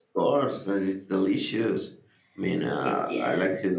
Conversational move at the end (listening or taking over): listening